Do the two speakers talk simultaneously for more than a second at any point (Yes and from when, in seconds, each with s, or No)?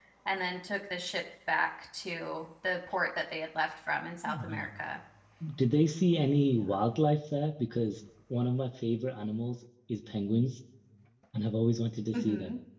No